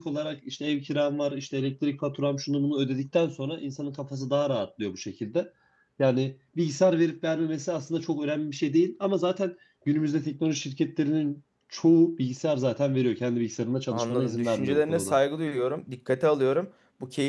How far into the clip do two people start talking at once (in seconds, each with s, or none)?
13.9 s